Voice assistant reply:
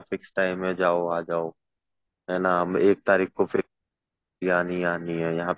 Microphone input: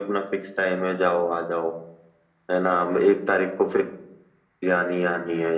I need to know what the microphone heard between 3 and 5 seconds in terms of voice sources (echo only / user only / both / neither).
echo only